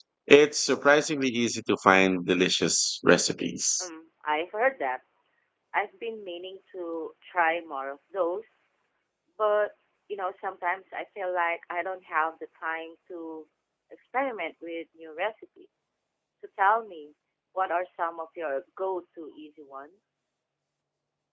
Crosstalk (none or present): none